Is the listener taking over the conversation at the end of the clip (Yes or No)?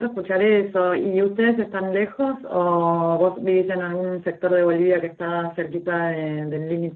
Yes